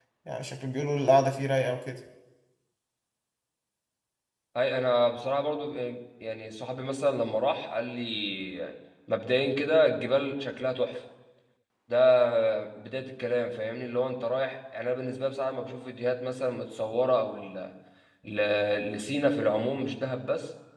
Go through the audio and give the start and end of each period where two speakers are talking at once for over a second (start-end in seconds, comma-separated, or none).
none